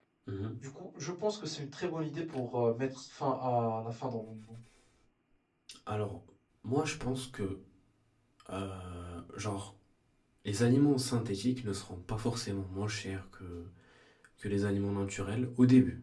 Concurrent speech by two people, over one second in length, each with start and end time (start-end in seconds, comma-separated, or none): none